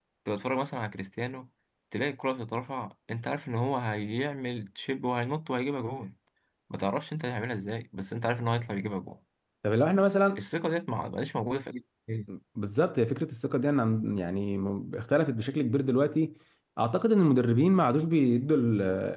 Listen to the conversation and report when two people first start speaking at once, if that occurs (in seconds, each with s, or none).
none